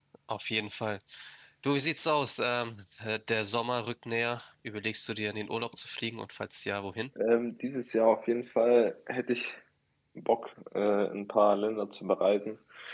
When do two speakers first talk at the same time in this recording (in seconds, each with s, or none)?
none